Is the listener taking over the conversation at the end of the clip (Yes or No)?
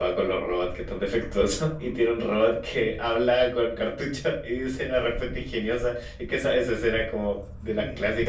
Yes